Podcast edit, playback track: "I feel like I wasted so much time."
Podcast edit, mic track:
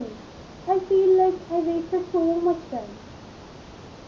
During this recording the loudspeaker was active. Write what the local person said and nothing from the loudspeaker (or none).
none